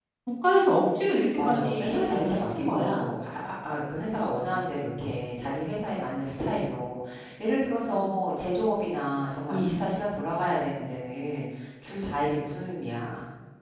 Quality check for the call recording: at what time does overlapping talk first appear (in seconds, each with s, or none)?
1.4 s